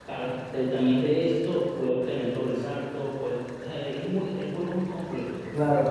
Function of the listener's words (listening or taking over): taking over